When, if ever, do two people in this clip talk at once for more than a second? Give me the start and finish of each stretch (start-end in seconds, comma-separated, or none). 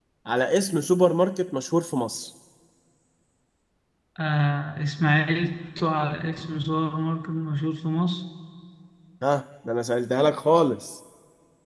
none